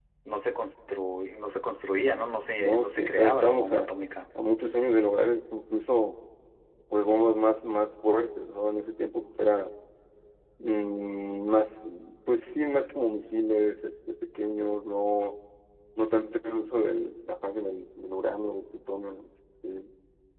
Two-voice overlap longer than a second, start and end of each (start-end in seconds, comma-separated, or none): 2.6-3.8